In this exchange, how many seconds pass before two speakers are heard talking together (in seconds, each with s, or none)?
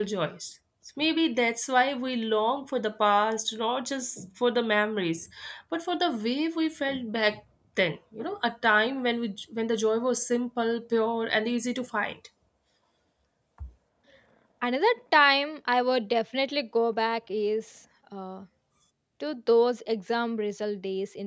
none